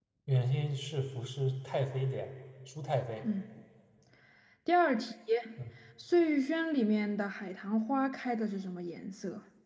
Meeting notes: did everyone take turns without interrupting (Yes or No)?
Yes